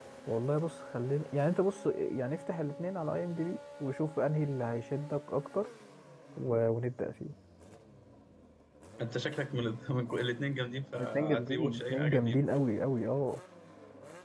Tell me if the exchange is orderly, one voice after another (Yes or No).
No